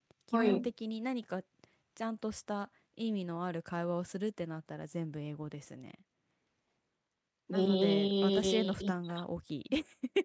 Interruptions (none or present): present